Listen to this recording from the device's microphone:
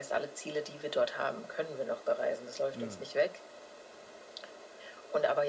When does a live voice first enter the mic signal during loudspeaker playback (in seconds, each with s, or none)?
2.7 s